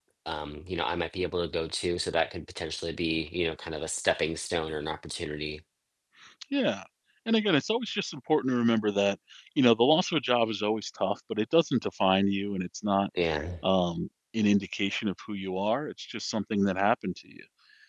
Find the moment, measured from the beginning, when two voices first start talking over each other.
none

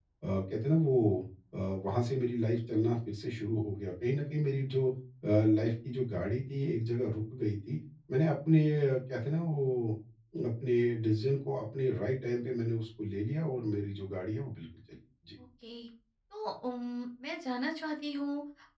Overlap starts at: none

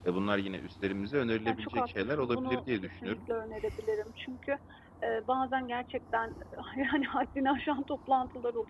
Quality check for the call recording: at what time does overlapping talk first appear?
1.4 s

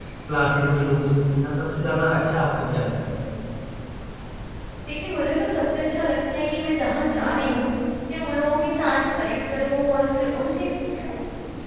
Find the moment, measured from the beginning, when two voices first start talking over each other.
none

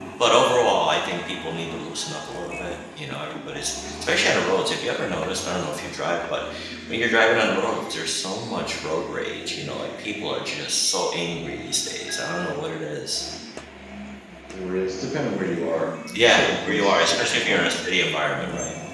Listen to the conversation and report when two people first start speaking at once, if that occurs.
16.2 s

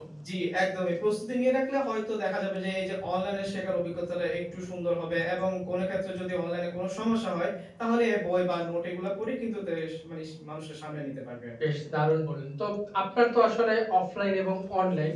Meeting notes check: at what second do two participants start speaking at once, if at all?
none

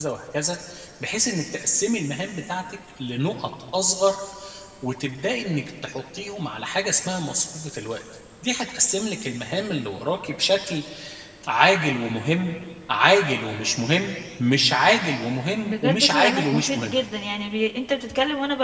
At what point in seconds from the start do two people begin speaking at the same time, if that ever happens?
15.6 s

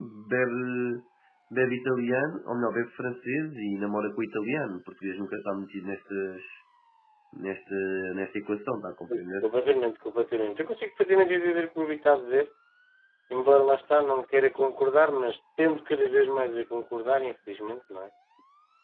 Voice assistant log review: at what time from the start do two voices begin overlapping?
none

